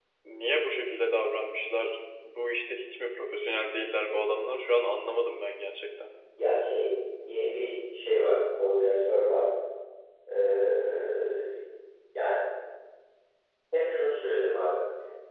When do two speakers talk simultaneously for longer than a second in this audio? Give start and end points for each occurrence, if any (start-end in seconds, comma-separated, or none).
none